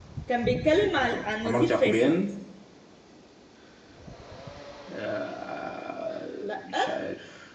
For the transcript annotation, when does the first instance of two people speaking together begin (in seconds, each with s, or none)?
0.7 s